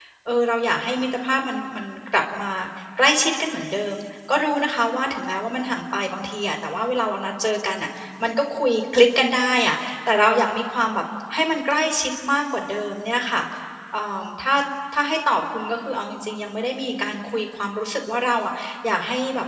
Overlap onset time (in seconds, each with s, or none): none